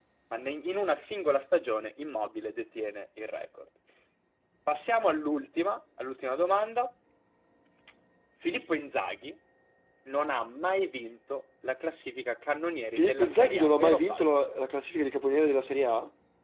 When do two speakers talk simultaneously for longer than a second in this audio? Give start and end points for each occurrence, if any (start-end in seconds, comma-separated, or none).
13.0-14.2